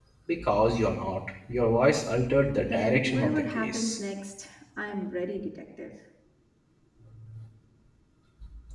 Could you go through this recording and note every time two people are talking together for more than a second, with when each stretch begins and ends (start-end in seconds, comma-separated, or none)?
2.6-4.0